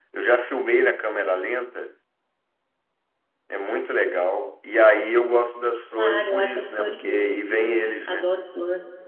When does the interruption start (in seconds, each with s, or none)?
6.0 s